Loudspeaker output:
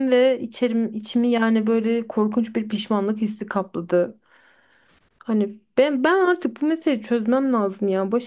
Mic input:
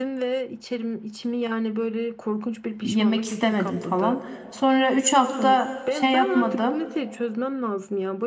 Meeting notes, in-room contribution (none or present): present